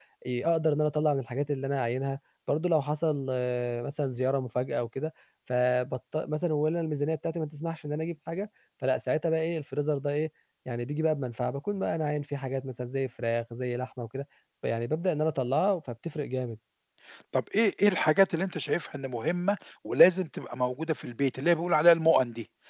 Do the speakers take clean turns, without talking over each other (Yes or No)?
Yes